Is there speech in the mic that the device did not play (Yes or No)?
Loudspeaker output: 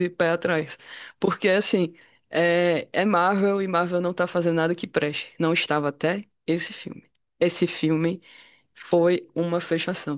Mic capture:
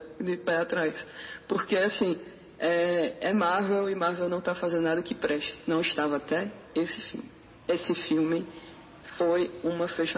No